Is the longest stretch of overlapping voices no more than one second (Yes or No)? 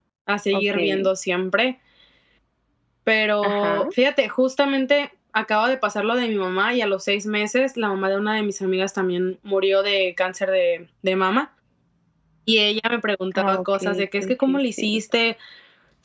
No